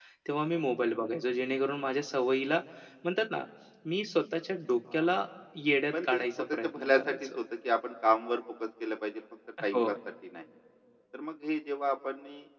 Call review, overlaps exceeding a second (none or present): present